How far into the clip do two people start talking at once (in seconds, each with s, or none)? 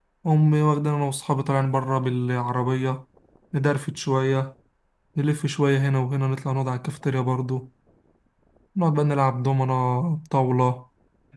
none